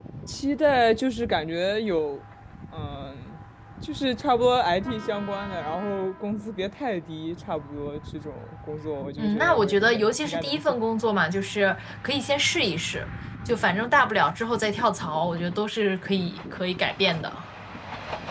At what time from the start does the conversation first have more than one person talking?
9.2 s

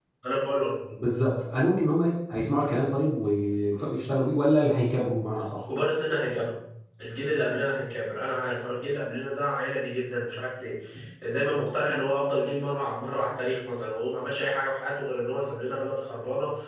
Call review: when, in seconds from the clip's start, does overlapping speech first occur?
none

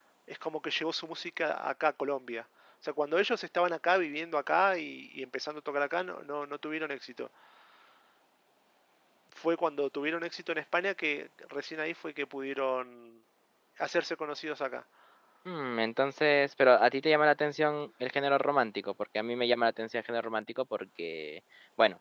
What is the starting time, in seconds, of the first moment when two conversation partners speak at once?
none

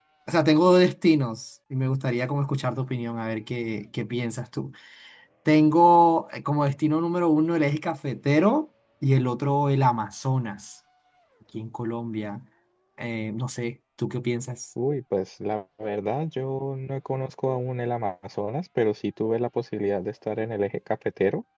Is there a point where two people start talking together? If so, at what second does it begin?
none

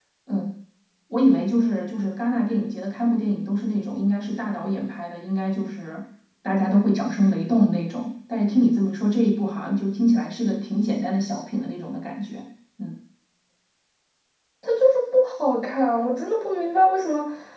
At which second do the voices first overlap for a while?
none

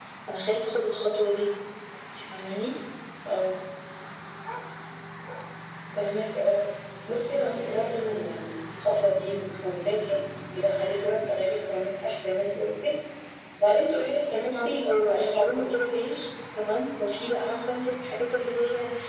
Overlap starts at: 14.5 s

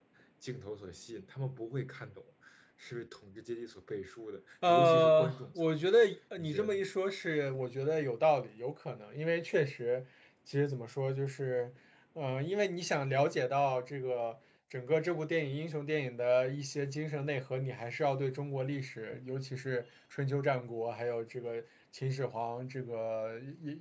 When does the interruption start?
4.7 s

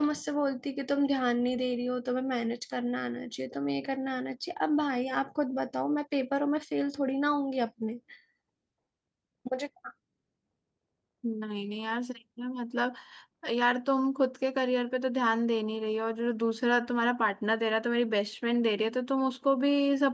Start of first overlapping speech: none

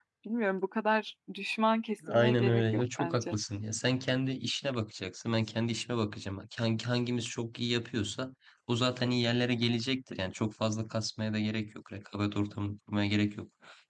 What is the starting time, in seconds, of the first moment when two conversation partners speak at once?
2.0 s

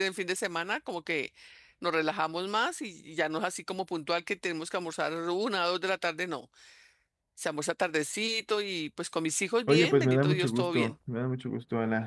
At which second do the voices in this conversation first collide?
9.7 s

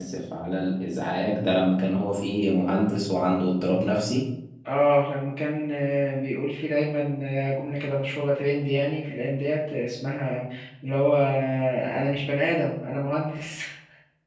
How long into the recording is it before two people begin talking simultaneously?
none

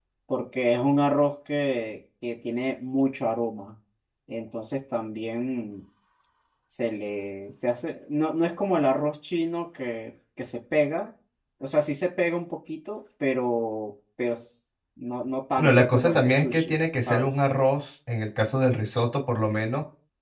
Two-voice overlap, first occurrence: 15.6 s

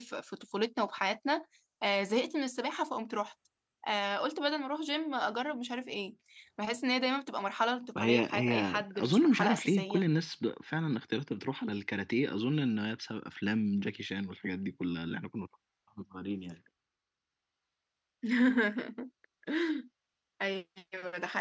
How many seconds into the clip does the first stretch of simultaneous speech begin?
8.0 s

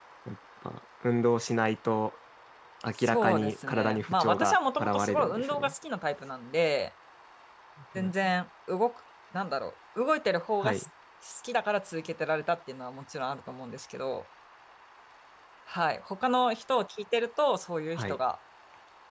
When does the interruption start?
3.0 s

